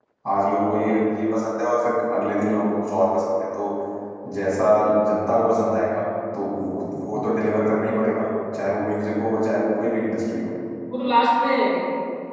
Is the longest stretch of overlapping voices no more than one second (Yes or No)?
Yes